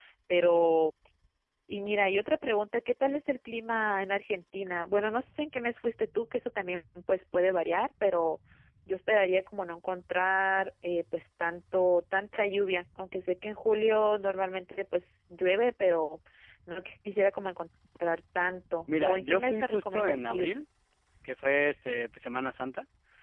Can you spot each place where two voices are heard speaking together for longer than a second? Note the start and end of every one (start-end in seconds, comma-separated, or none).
19.0-20.5